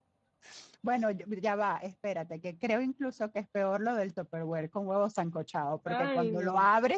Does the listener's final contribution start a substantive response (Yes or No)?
No